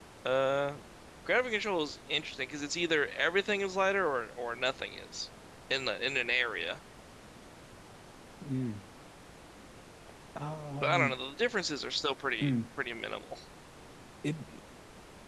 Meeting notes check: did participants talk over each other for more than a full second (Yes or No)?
No